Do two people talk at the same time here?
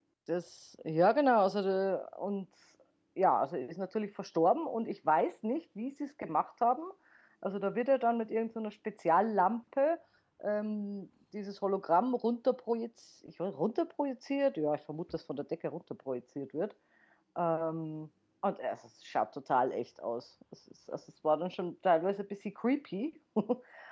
No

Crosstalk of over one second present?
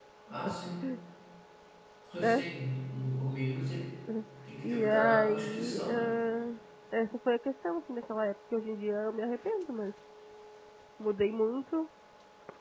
Yes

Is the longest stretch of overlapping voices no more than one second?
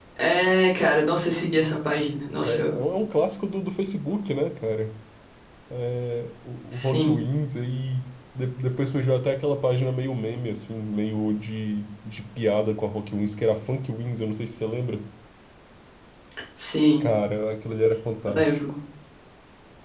Yes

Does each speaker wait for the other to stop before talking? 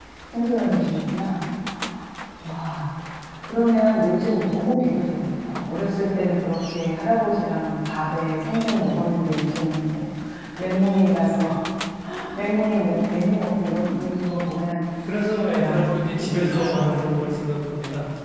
No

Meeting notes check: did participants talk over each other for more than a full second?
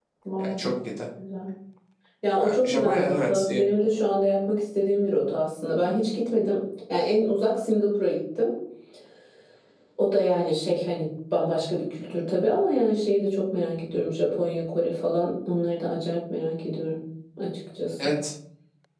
Yes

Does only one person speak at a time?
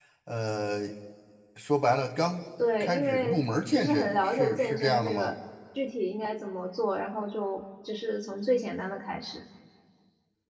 No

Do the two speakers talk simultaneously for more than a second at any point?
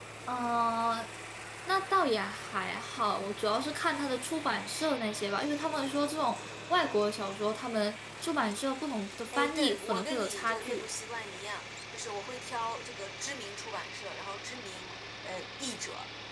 Yes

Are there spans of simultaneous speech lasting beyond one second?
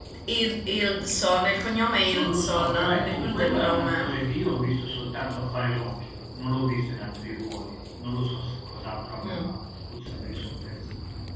Yes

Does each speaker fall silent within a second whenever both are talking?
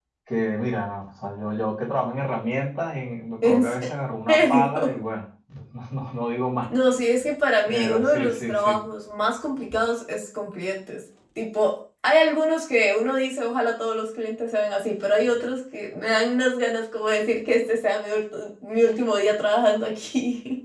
No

